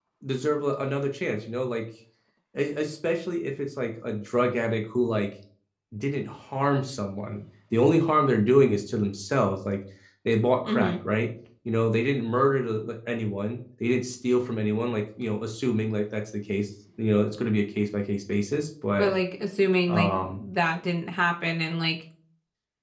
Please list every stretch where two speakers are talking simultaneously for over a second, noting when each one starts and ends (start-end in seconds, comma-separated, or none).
none